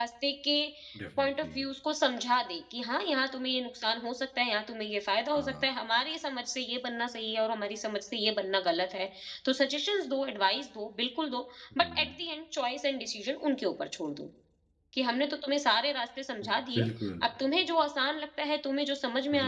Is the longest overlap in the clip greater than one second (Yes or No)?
No